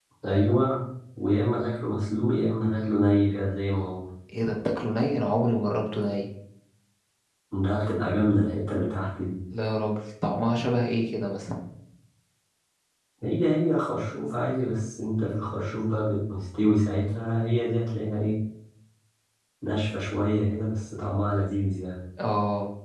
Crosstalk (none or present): none